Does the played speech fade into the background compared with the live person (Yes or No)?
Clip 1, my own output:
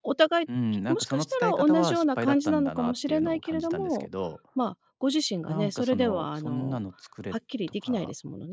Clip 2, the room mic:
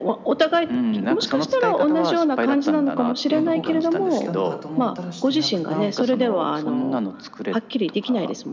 No